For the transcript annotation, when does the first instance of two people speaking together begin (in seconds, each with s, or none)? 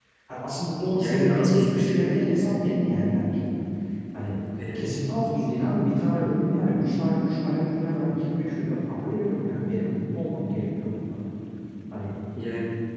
0.9 s